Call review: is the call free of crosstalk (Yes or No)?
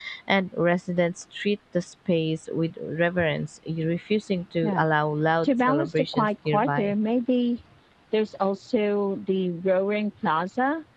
No